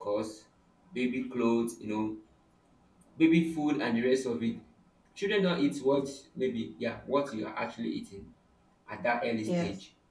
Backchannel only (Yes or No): Yes